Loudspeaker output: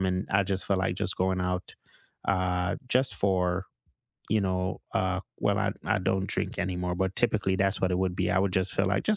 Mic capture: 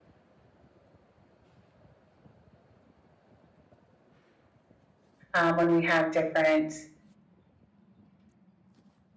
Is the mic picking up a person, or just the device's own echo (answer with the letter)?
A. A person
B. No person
A